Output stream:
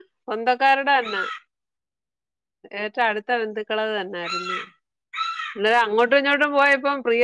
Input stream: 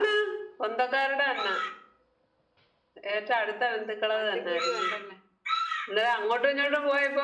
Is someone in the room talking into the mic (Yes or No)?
Yes